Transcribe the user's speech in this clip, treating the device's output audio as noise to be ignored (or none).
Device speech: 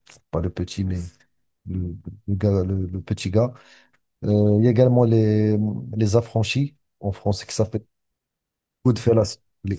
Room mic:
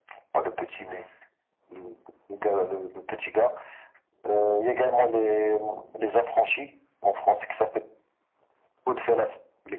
none